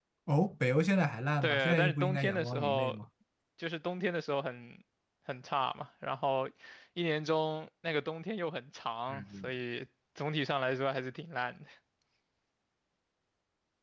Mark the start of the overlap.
1 s

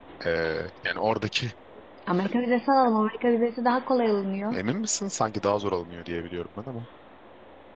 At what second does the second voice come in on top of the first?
none

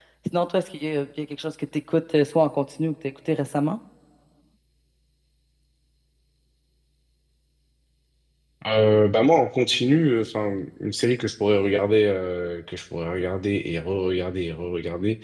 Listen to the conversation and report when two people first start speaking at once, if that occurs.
none

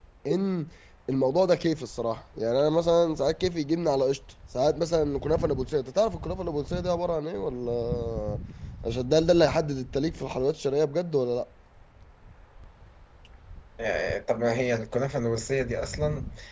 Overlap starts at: none

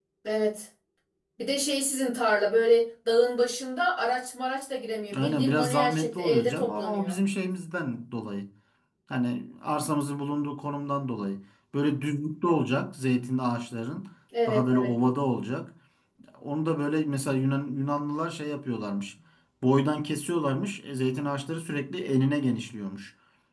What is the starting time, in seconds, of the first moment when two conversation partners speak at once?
5 s

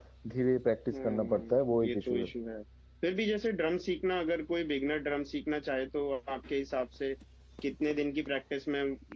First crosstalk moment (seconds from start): 1 s

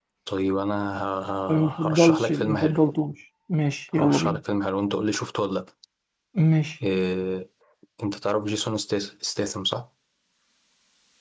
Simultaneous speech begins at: 1 s

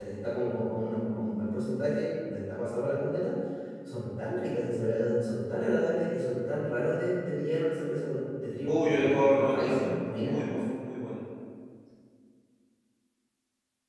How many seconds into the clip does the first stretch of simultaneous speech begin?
9 s

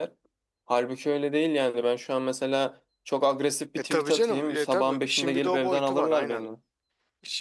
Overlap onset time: 4 s

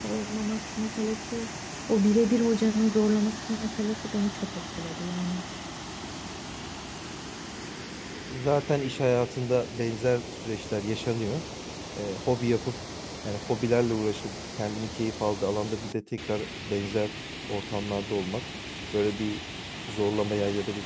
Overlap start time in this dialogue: none

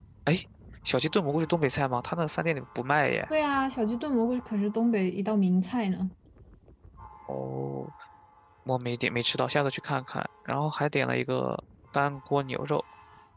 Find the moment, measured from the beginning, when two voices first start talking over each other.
none

